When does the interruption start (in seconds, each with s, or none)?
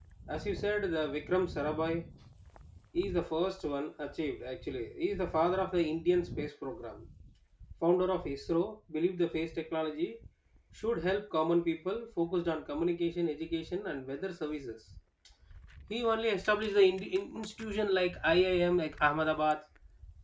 none